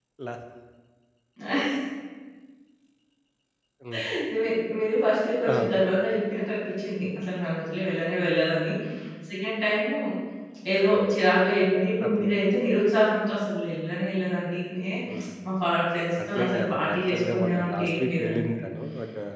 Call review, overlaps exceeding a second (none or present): present